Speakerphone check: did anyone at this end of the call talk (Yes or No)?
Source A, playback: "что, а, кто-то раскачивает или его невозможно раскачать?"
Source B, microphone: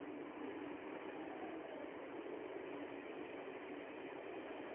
No